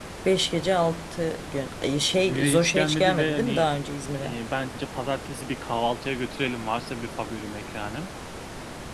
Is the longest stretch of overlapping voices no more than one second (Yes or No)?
No